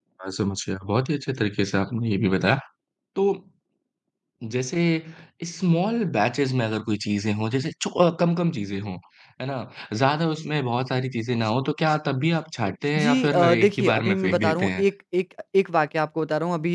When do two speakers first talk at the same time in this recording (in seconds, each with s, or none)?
13.0 s